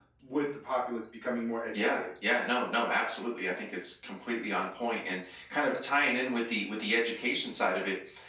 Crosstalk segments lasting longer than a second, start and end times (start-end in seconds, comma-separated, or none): none